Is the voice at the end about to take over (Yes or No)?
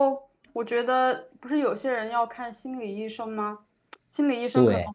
No